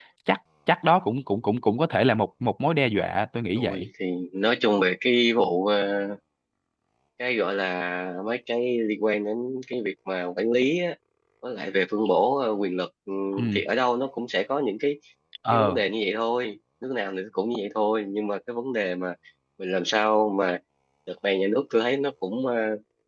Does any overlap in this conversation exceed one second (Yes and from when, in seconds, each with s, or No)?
No